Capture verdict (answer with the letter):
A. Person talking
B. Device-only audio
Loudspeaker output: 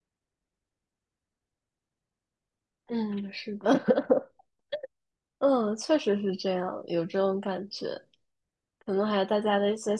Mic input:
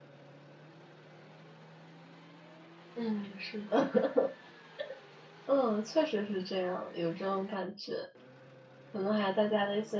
B